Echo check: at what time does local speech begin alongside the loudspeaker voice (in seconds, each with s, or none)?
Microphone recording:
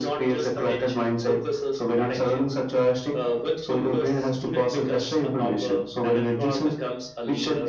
none